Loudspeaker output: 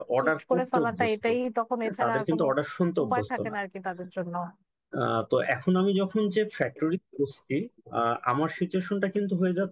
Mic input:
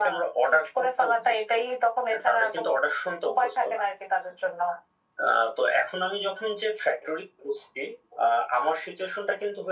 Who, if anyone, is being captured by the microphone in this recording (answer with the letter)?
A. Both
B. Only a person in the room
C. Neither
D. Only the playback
D